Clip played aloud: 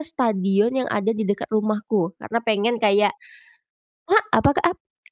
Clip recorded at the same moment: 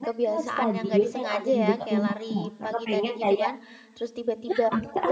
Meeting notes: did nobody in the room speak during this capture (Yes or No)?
No